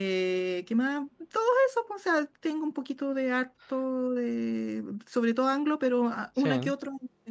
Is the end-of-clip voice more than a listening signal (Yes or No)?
No